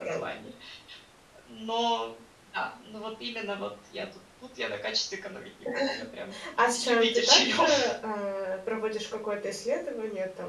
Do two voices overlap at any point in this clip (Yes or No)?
Yes